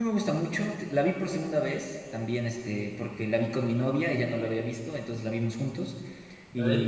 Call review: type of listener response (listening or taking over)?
listening